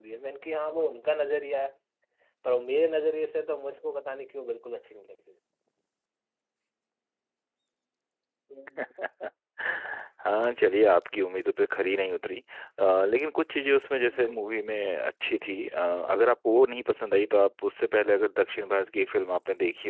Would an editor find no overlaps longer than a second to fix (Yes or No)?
Yes